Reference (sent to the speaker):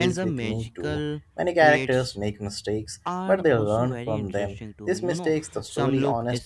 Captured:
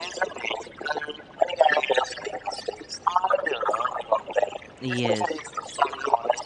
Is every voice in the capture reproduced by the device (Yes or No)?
No